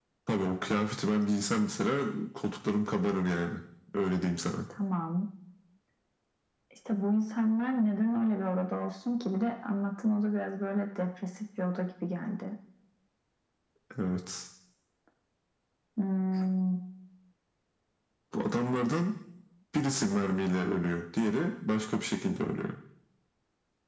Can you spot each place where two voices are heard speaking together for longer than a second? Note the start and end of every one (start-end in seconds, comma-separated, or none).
none